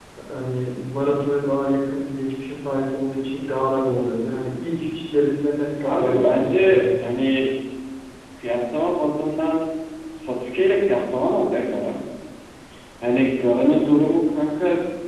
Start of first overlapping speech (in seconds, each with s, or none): 5.8 s